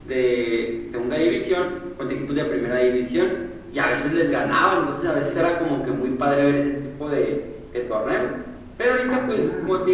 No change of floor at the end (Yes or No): Yes